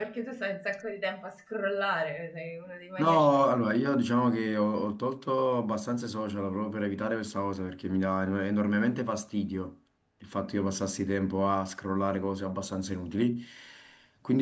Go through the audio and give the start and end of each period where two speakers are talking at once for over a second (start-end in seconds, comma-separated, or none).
none